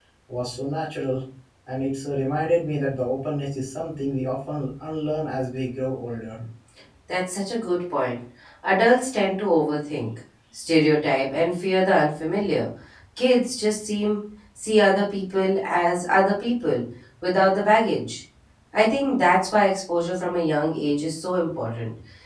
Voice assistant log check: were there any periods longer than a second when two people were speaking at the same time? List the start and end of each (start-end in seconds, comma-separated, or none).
none